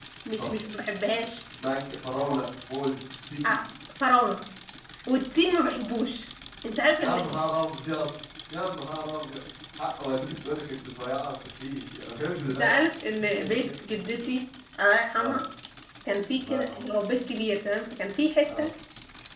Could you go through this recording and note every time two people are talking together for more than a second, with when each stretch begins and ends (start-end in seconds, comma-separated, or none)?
none